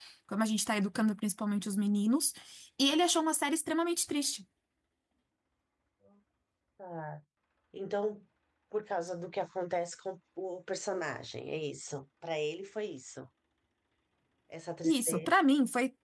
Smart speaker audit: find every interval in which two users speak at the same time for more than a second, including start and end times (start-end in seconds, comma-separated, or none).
none